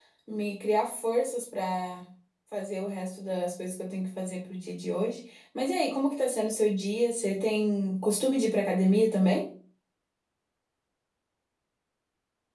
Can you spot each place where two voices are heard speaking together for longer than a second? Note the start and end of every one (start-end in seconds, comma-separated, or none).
none